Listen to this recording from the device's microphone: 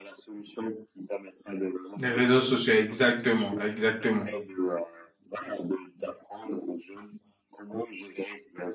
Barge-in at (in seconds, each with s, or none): 2.0 s